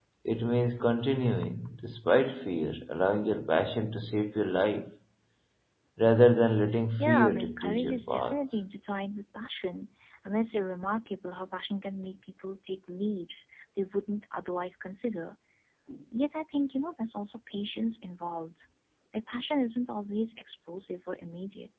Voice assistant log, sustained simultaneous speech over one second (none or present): present